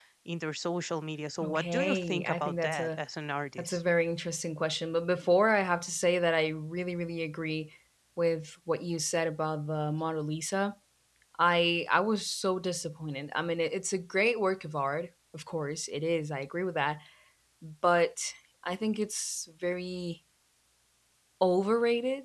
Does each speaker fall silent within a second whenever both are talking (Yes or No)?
No